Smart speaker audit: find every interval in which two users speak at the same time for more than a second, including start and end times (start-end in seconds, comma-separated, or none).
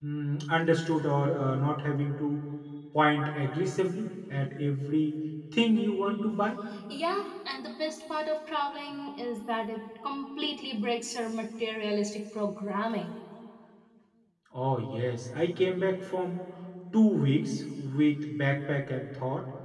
none